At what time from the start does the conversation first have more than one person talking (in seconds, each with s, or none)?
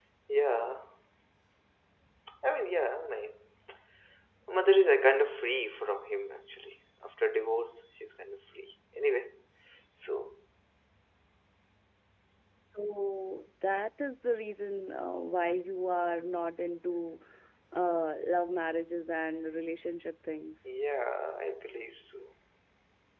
none